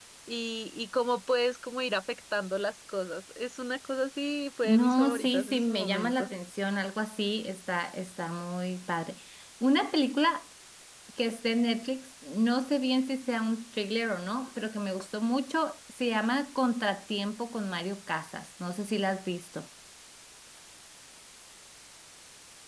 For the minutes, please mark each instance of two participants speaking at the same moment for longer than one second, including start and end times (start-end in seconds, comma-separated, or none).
4.6-6.3